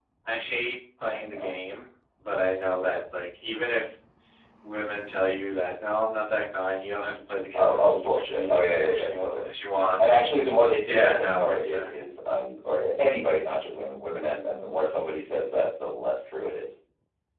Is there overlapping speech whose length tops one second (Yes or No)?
Yes